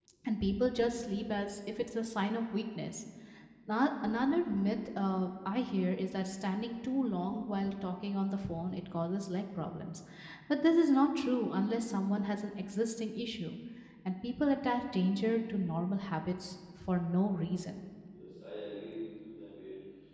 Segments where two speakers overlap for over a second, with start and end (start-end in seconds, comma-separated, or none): none